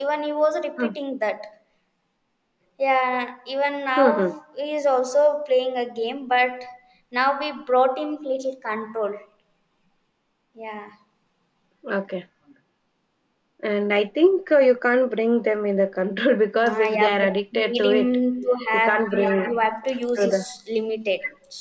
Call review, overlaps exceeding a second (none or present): present